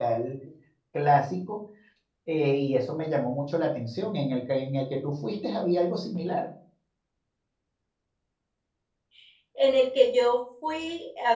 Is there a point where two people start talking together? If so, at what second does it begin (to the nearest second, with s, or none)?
none